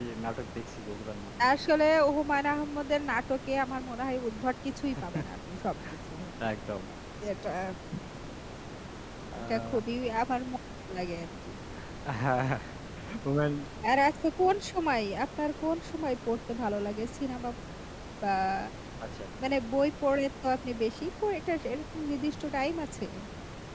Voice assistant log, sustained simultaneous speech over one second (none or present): none